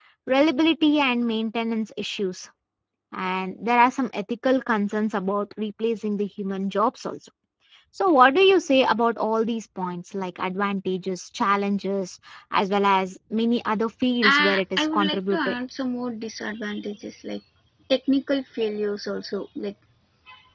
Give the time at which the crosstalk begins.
14 s

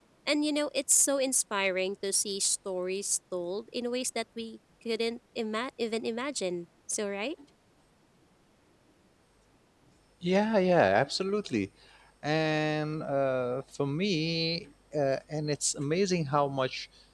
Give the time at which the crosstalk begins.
none

